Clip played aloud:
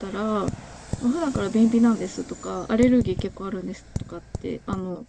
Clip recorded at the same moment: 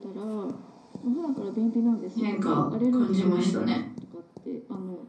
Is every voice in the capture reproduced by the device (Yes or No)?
No